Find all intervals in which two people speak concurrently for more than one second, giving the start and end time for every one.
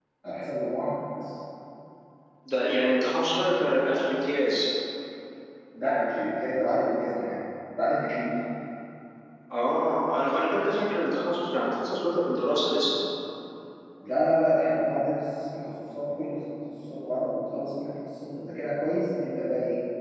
none

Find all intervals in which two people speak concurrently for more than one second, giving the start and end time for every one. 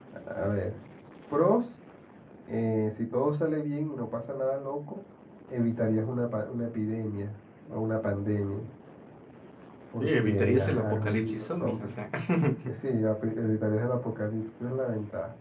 10.0-11.9

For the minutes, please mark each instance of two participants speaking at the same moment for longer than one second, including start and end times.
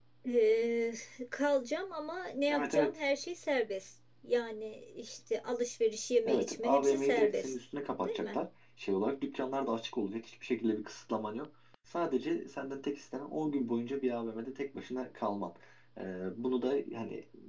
6.2-7.5

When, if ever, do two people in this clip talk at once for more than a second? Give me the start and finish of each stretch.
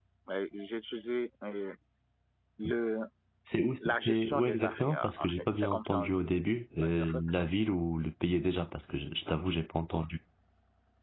3.8-6.3

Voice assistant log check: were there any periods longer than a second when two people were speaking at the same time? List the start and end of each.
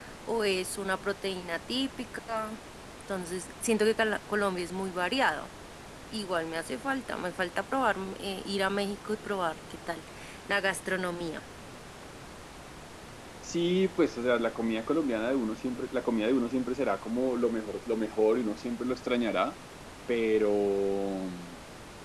none

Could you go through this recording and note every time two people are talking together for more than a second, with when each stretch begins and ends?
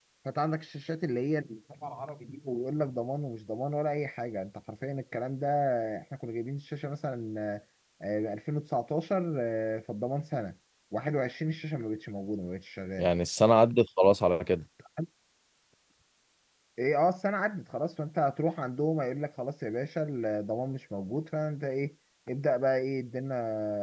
none

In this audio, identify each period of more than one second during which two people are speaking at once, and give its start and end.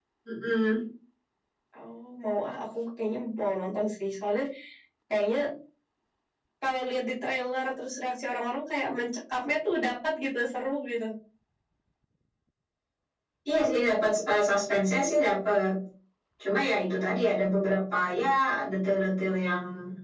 none

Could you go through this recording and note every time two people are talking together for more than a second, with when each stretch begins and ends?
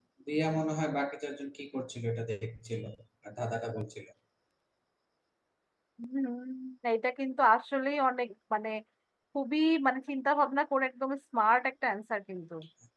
none

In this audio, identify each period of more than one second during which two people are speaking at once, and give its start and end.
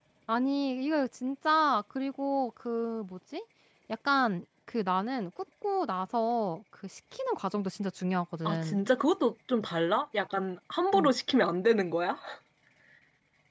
none

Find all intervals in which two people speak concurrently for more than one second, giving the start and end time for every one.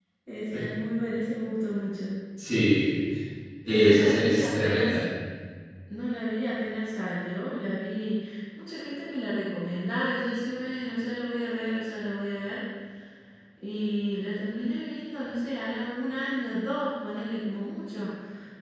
3.7-5.0

